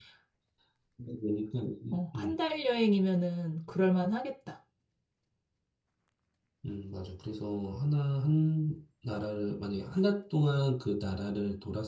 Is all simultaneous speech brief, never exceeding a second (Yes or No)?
Yes